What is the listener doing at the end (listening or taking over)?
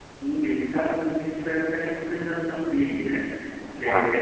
listening